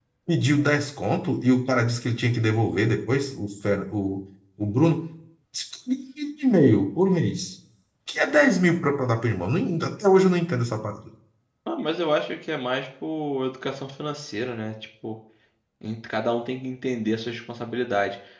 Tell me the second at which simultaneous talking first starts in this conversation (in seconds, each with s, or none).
none